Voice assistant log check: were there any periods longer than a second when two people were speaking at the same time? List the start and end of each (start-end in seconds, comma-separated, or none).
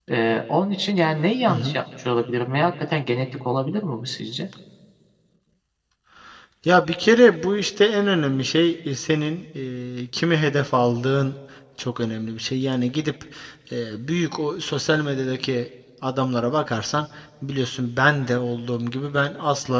none